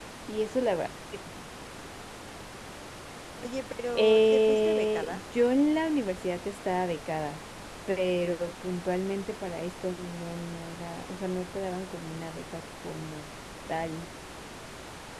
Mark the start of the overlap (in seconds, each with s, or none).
4.0 s